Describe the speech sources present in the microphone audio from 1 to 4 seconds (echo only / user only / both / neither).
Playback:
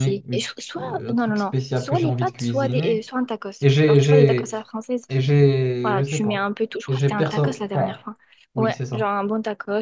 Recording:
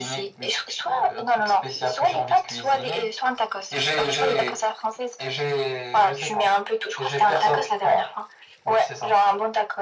echo only